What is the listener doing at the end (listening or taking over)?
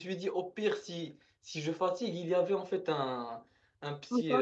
listening